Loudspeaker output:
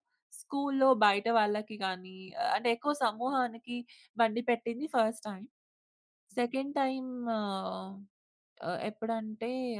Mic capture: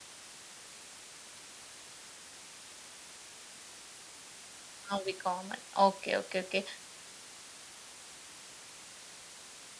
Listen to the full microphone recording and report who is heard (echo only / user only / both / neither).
user only